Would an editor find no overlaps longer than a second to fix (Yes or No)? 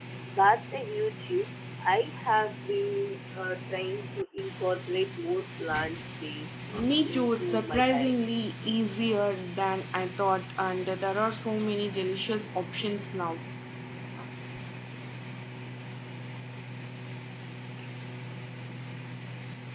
No